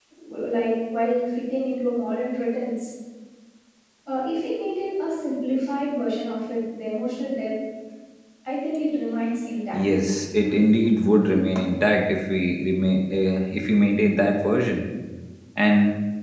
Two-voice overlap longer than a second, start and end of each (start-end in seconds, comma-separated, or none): none